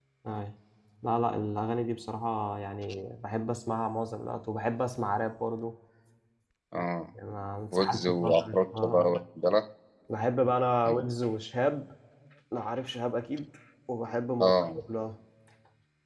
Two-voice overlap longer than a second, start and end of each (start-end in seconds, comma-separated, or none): 7.7-9.2